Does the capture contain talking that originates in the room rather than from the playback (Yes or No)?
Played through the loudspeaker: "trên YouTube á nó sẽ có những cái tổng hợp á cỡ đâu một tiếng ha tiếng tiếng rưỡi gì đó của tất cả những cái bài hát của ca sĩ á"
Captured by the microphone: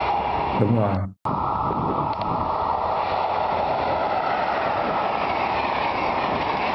Yes